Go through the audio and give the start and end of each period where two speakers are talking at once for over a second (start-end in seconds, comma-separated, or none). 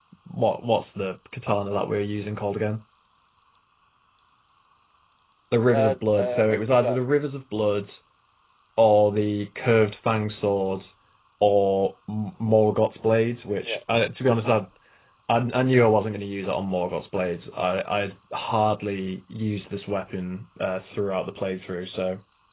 5.7-7.0